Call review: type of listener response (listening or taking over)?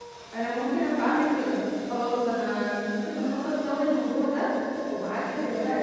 listening